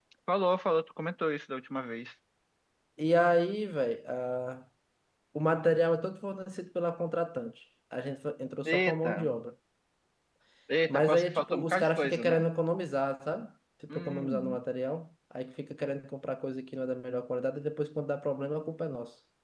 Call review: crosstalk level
present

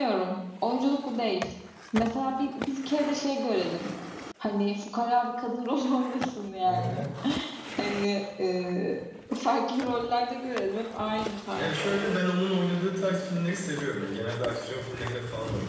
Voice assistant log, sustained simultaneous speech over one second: none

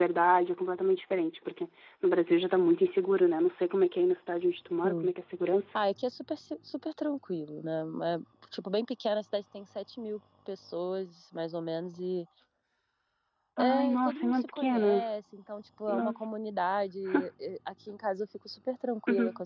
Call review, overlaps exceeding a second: present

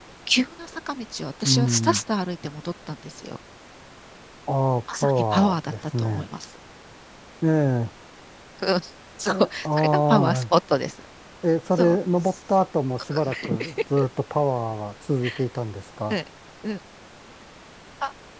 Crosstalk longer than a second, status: present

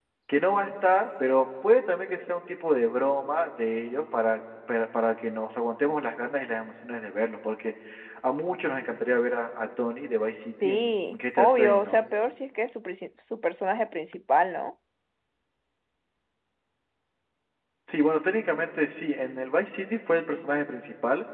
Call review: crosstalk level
present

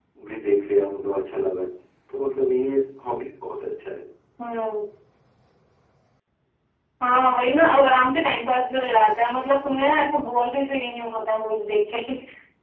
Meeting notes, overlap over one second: none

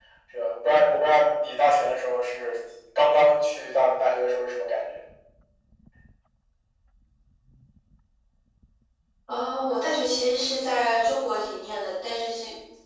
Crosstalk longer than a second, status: none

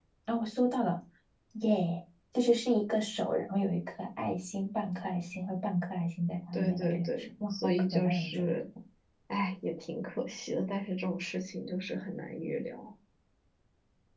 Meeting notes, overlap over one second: present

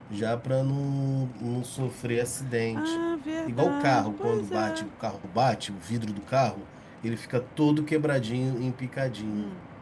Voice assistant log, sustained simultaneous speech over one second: present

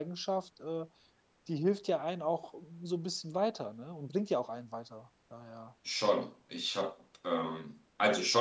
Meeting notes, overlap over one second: none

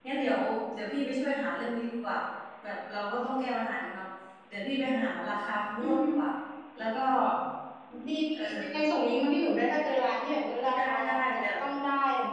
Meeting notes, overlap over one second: none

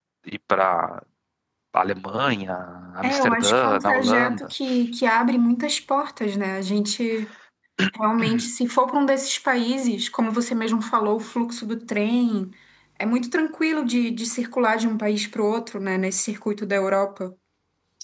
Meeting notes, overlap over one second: present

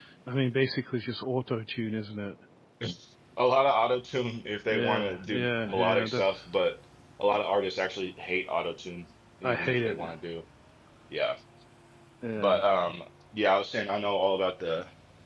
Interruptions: present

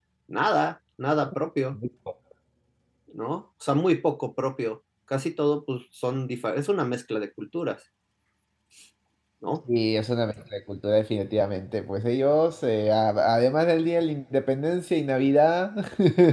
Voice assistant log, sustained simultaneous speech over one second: none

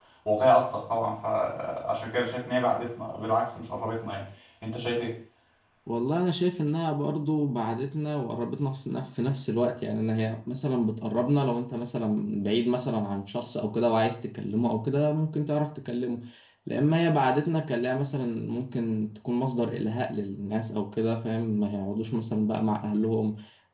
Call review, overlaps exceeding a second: none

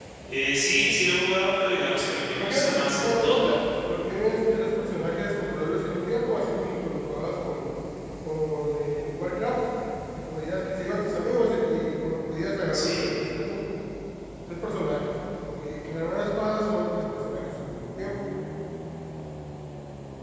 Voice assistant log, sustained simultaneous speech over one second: present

